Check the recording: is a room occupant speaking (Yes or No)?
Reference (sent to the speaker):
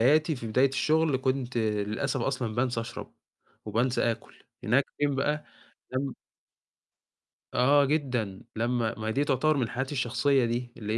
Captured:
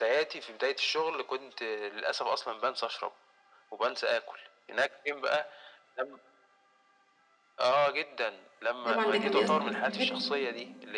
Yes